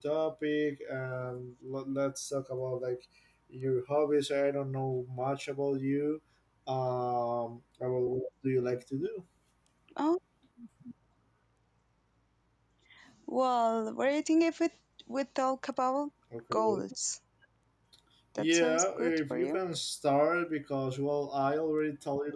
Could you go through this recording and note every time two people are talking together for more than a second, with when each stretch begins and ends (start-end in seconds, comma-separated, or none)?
18.4-19.6